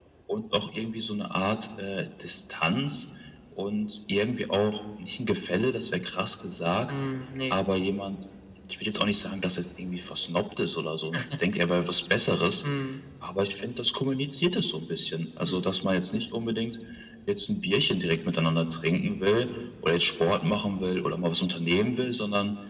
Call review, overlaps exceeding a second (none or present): none